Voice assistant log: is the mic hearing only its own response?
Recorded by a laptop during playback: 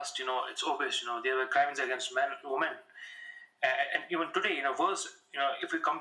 Yes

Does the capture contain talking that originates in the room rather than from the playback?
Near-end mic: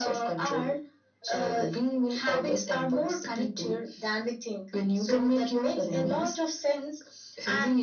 No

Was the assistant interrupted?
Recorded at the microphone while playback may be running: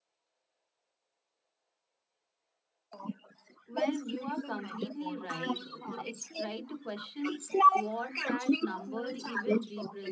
Yes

